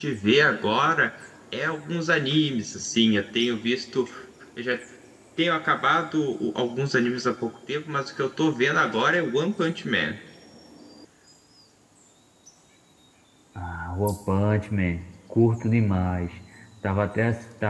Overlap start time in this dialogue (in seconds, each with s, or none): none